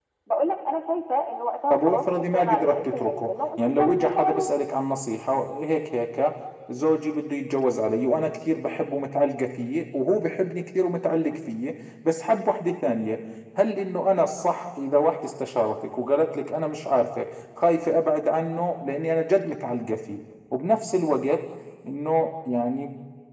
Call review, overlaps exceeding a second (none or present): present